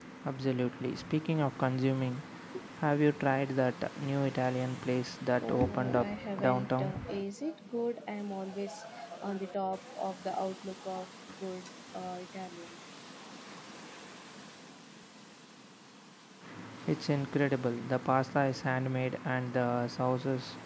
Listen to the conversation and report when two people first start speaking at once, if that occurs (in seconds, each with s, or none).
5.4 s